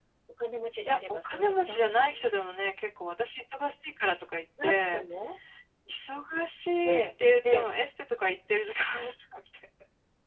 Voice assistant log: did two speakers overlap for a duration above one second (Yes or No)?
Yes